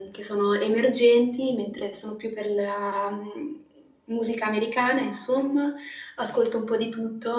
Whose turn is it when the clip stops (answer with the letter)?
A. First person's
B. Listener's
A